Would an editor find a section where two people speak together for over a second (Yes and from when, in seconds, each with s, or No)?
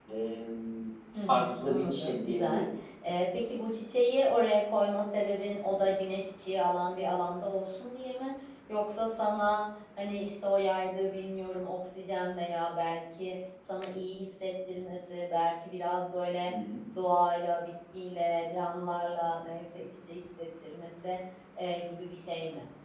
Yes, from 1.3 s